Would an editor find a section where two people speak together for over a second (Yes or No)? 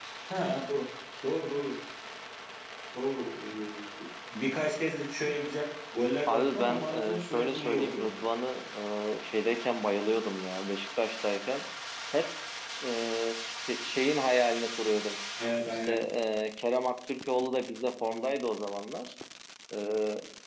Yes